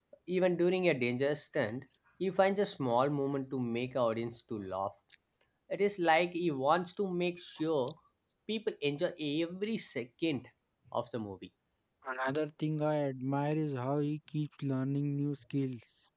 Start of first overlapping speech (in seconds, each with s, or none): none